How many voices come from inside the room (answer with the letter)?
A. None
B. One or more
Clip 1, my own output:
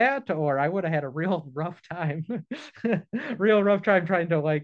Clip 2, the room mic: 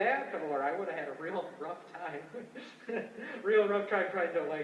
A